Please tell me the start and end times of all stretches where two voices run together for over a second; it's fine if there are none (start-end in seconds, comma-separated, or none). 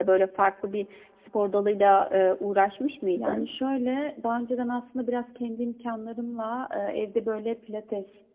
none